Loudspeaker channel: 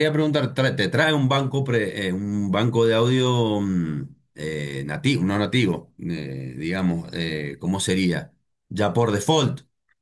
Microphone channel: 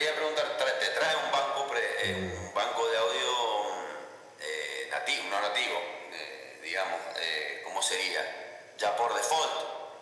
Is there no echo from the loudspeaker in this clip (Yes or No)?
No